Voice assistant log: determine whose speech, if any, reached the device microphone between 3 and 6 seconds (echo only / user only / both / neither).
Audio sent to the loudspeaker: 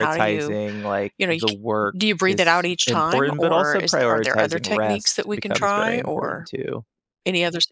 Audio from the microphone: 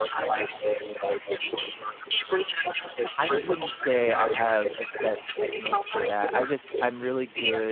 both